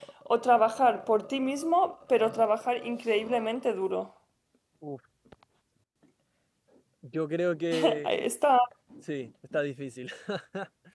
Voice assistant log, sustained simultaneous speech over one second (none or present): none